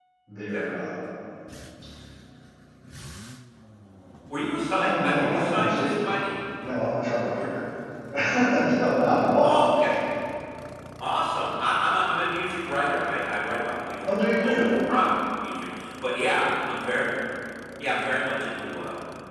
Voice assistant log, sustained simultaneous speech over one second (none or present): present